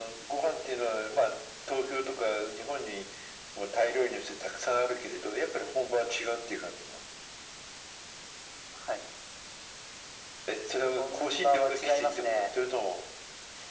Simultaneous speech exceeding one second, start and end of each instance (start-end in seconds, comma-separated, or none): 11.0-12.5